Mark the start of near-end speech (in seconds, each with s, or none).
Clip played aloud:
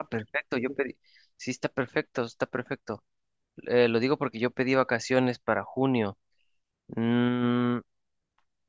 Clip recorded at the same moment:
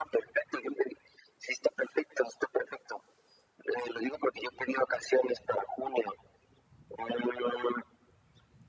none